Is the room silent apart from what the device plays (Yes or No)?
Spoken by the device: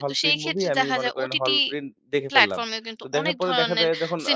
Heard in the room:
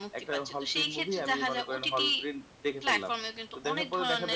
Yes